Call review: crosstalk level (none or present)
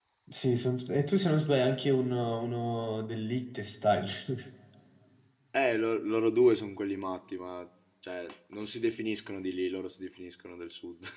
none